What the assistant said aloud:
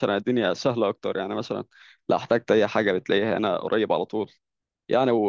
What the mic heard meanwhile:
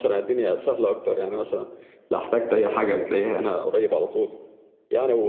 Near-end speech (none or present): none